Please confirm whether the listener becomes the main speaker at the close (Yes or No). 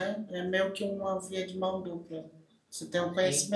No